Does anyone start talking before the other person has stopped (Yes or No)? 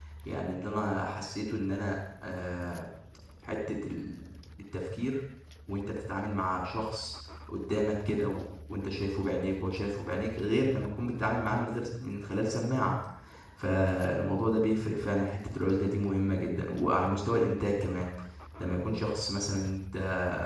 No